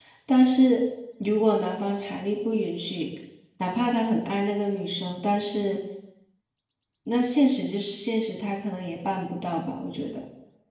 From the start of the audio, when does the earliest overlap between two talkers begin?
none

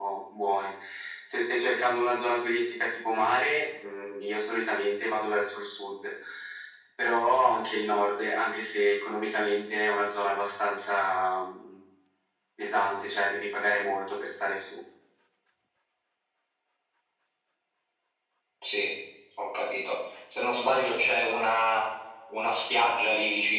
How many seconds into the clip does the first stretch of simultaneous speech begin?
none

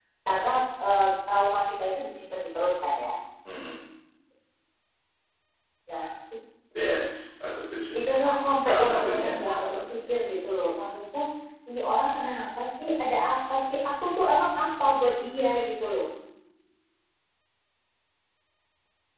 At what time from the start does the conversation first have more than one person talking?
8.6 s

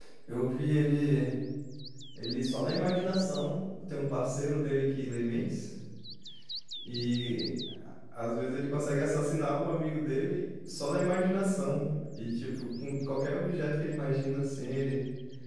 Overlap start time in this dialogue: none

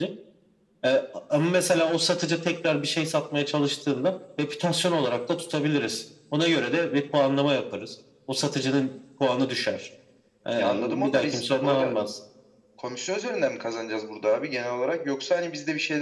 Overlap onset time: 10.5 s

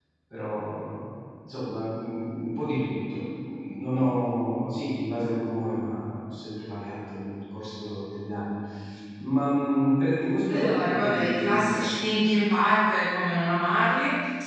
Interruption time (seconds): 10.5 s

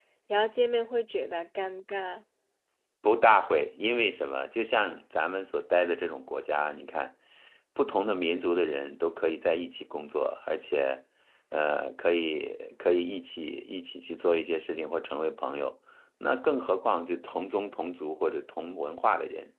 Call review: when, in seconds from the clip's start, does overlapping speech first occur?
none

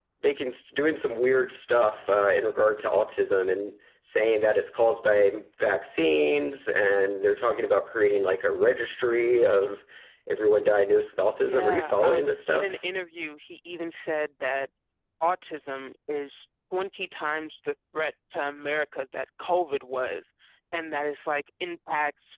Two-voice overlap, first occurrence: 11.3 s

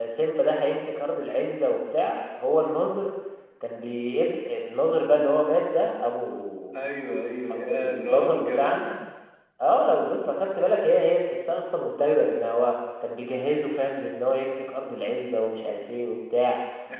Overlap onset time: 7.5 s

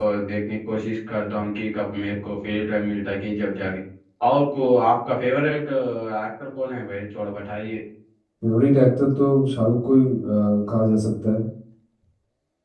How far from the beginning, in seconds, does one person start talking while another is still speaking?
none

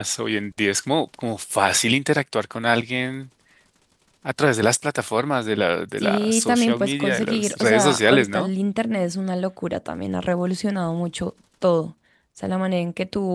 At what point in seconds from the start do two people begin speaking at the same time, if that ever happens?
6.0 s

